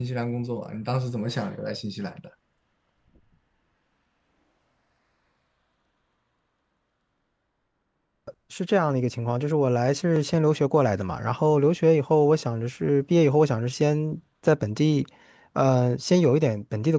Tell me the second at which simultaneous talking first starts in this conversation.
none

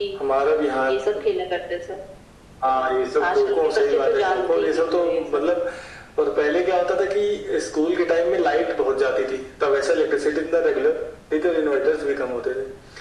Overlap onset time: 3.3 s

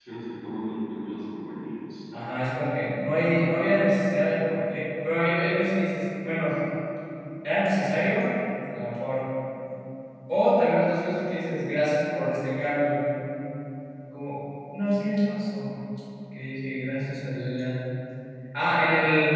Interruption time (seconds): none

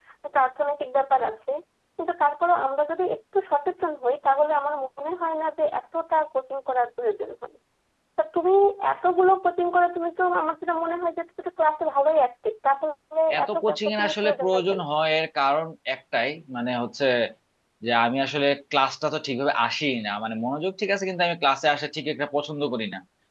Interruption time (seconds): 13.3 s

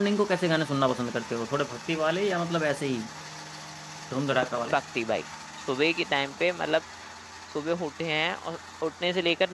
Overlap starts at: none

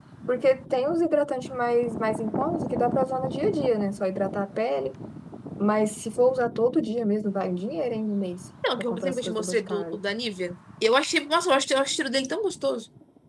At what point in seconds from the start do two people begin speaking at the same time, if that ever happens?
8.6 s

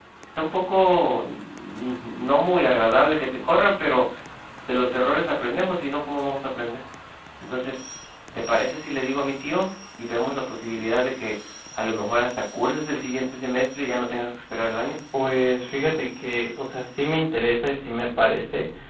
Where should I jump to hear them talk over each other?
none

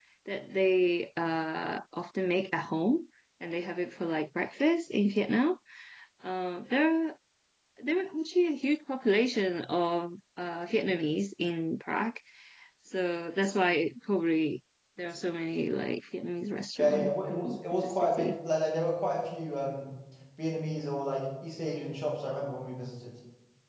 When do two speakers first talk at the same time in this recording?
16.8 s

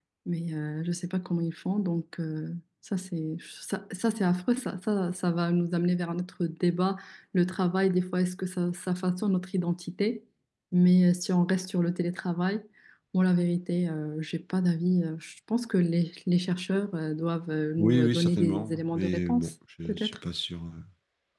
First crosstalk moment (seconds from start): 17.8 s

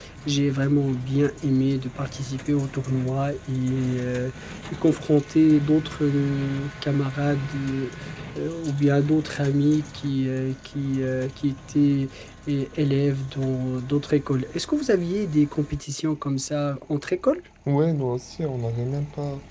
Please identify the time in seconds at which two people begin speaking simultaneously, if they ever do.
none

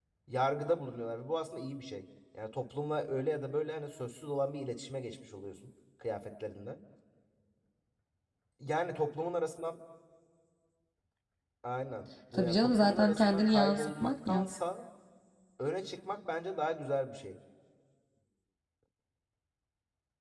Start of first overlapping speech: 12.3 s

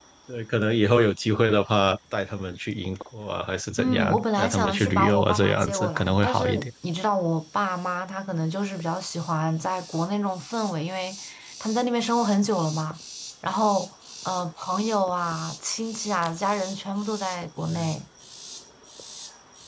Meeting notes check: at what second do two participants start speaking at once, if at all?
3.8 s

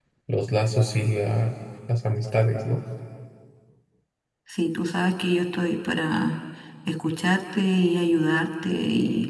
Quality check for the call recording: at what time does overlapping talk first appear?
none

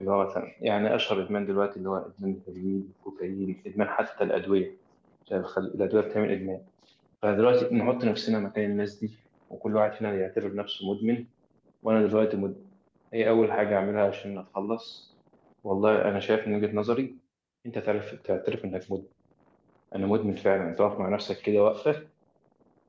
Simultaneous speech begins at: none

